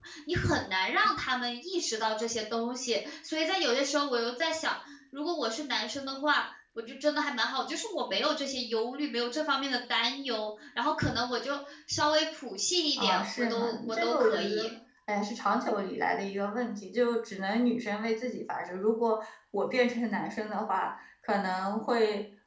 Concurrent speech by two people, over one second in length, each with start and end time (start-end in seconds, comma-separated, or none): 13.0-14.7